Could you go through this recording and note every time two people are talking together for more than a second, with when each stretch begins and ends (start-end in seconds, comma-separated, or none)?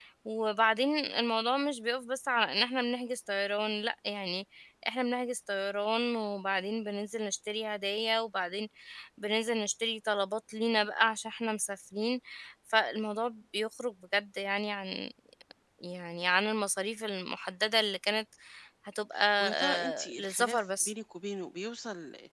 19.4-20.9